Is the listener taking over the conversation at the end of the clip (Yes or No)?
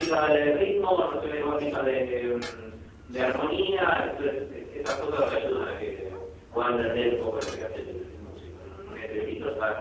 No